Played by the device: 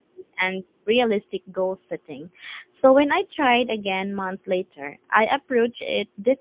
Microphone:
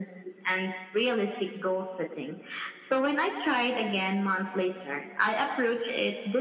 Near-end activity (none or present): none